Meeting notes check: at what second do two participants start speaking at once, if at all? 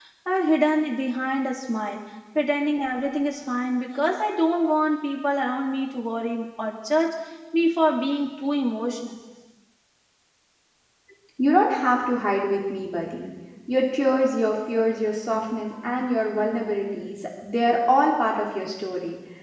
none

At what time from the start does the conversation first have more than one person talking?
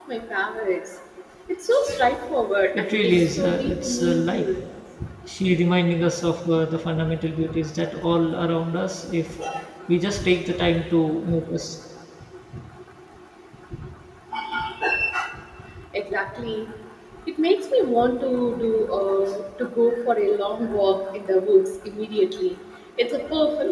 2.8 s

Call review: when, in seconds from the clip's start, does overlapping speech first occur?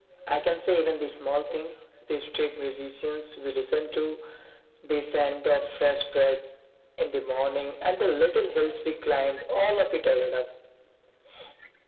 none

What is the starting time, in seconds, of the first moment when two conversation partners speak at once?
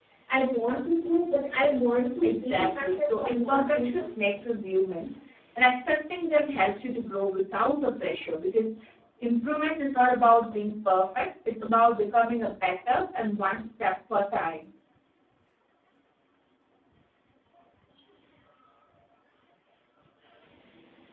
2.2 s

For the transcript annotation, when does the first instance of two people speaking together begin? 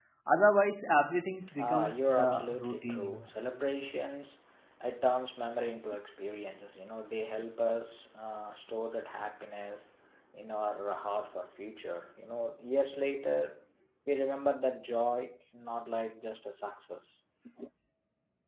1.5 s

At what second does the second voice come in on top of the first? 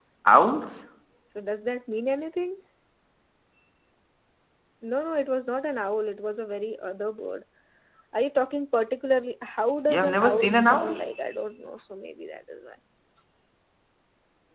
9.8 s

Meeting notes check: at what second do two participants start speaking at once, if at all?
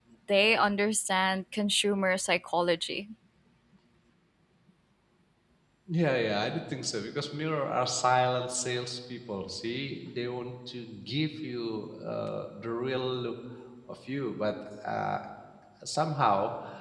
none

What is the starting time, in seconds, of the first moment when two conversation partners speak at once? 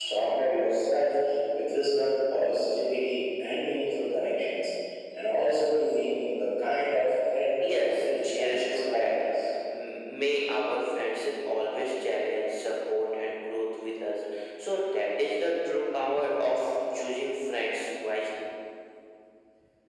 7.5 s

